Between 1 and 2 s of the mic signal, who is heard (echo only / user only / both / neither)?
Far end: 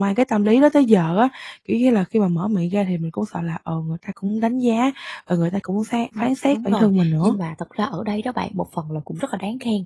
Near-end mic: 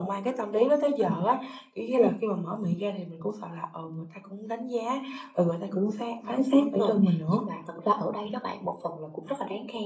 echo only